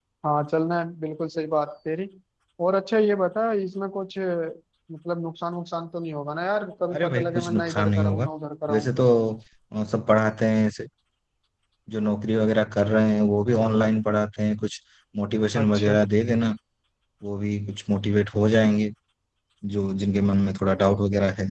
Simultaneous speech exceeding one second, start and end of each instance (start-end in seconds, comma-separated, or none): 6.9-8.3